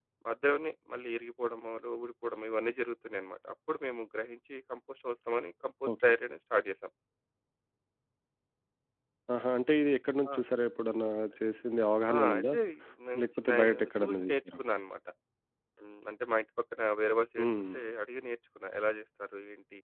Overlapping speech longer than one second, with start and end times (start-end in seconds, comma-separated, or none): 13.2-14.5